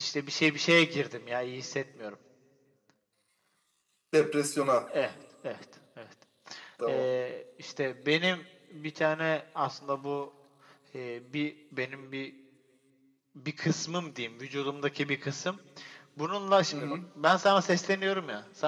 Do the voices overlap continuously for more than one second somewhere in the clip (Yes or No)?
No